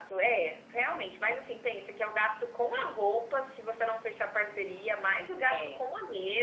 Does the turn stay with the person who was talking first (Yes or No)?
Yes